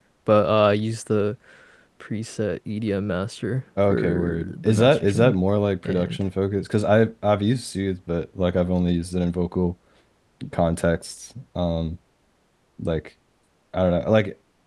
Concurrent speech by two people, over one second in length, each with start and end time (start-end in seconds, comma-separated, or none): 3.9-5.3